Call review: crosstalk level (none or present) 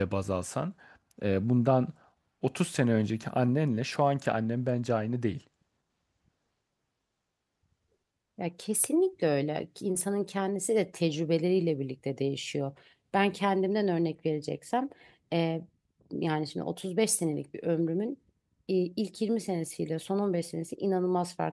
none